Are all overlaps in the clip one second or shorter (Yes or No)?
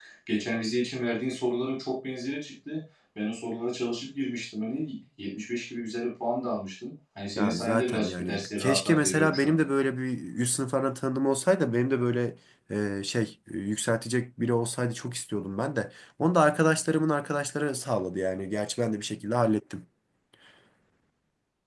No